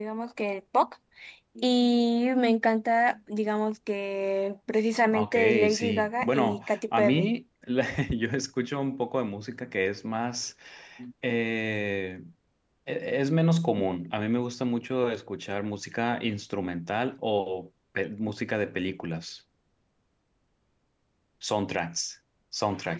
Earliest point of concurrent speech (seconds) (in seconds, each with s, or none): 5.1 s